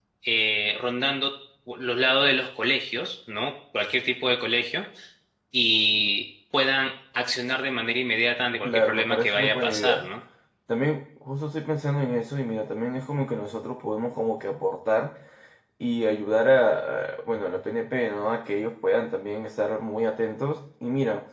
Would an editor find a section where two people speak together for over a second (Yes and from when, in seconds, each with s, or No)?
Yes, from 8.6 s